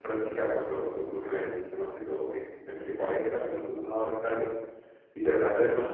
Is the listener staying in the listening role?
Yes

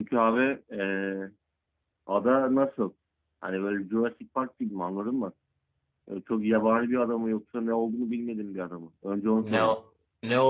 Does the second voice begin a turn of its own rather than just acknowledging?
Yes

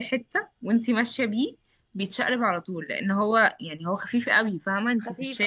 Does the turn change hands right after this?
Yes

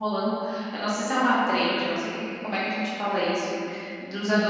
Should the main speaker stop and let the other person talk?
No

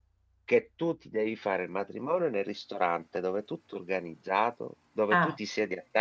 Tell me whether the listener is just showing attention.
Yes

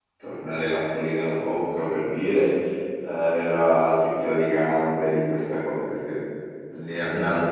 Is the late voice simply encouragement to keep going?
Yes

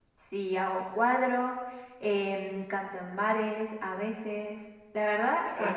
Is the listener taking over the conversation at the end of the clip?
Yes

